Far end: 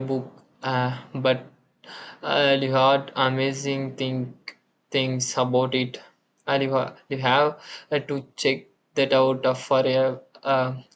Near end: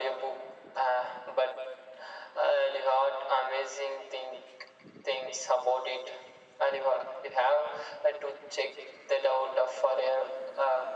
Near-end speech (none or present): none